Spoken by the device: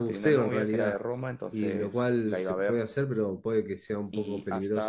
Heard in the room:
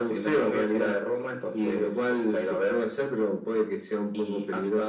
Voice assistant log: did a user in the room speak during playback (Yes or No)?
No